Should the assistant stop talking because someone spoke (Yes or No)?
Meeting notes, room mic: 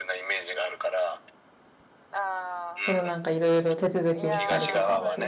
Yes